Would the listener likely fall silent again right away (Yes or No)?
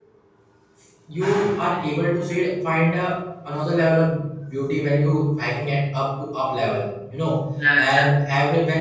Yes